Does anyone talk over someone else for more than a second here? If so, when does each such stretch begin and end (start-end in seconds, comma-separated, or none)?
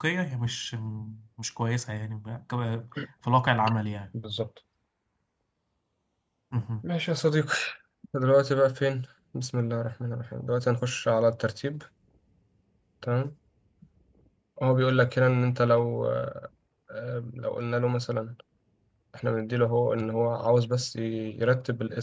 none